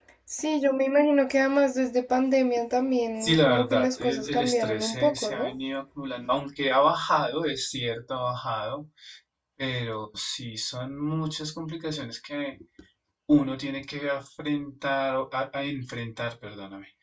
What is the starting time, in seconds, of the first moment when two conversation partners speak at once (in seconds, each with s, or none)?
3.2 s